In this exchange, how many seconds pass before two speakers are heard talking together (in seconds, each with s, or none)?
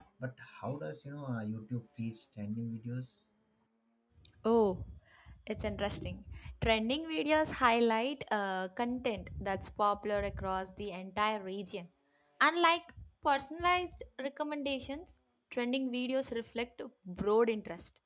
none